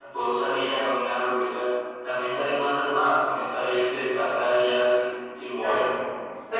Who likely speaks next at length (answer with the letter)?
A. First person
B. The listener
B